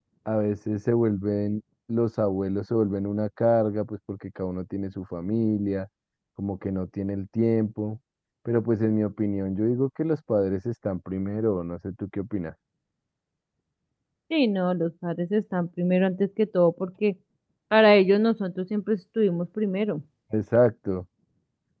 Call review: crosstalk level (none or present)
none